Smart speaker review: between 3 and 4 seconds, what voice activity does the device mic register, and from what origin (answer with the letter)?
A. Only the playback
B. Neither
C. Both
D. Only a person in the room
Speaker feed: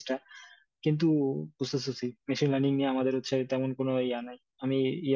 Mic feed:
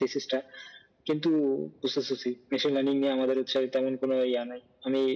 A